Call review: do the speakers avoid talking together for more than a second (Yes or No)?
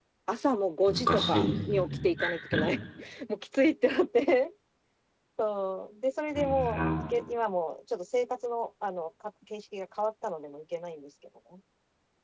No